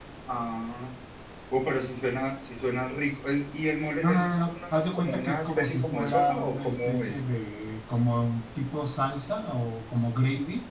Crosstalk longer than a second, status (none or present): present